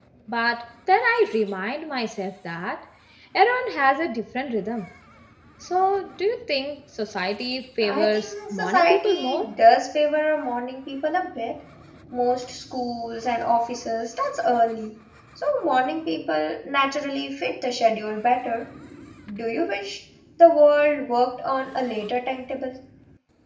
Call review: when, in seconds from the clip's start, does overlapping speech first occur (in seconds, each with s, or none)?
7.8 s